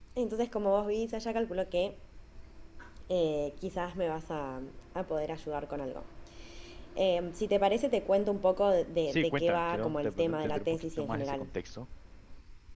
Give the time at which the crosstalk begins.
9.1 s

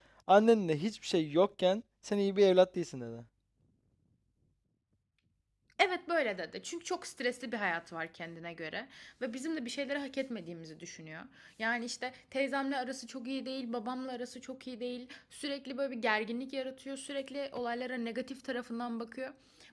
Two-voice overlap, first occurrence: none

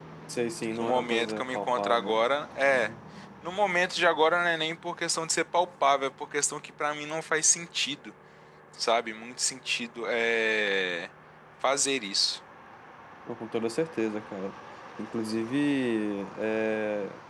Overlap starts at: 0.7 s

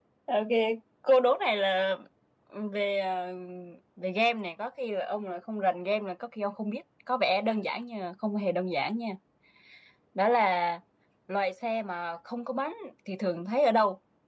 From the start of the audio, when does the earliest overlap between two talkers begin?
none

